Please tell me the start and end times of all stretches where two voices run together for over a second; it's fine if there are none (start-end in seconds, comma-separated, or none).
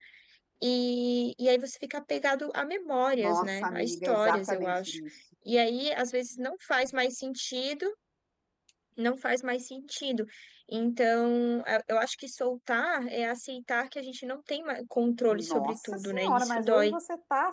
3.2-5.0, 15.3-17.0